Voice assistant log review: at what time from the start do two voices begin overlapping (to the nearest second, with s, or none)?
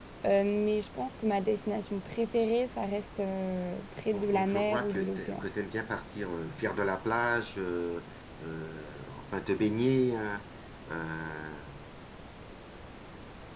4 s